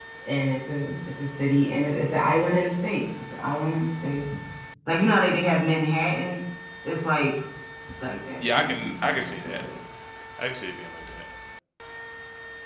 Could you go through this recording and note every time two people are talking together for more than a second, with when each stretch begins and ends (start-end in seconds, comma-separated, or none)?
8.4-9.6